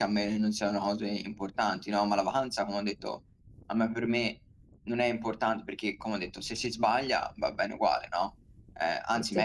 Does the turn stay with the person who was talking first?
Yes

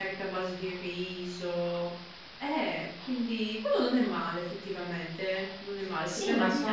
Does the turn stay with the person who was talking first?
No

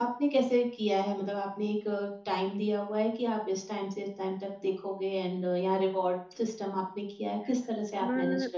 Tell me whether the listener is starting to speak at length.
Yes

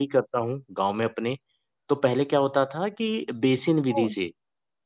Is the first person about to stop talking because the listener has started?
No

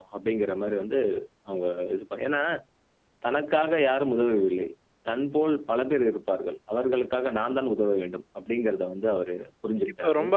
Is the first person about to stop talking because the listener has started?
Yes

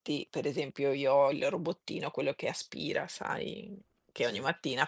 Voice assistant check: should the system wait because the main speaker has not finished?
Yes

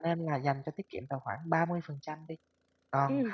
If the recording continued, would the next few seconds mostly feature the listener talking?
No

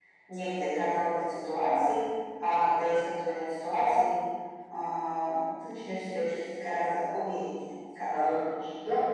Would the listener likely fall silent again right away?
No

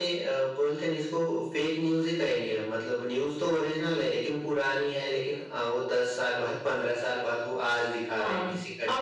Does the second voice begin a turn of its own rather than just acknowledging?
Yes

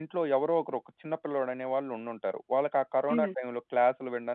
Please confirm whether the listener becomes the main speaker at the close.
No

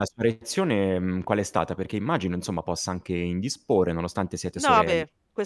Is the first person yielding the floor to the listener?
Yes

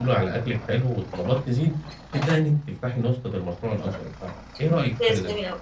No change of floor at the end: No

